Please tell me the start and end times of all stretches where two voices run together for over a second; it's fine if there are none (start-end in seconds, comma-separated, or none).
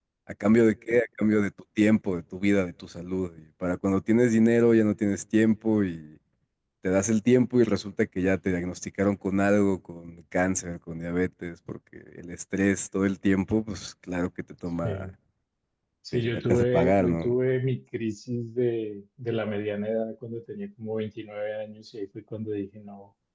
16.1-17.4